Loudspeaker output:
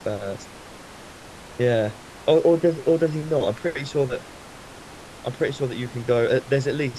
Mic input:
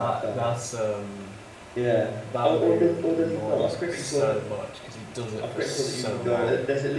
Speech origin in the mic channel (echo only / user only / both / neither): both